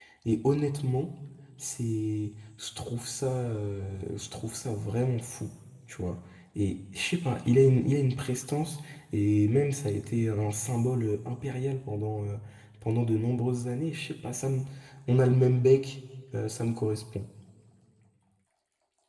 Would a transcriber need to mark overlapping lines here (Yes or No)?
No